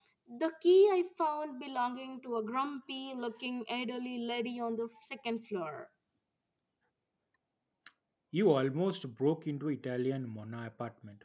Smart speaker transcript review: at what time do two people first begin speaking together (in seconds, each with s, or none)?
none